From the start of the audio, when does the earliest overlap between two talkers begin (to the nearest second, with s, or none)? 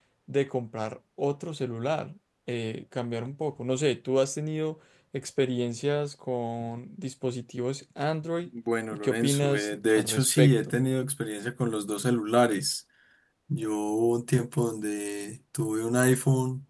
9 s